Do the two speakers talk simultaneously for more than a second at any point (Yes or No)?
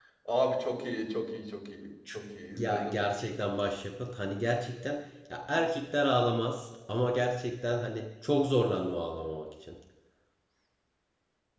No